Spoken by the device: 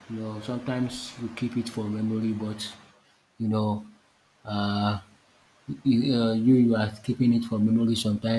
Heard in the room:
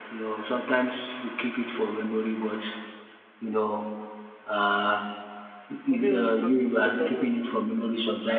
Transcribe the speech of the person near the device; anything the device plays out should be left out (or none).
for me, when it comes to photography,